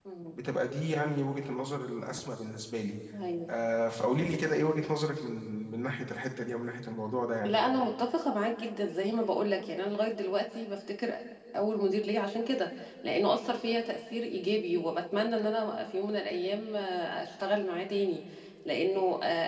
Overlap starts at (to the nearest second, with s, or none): none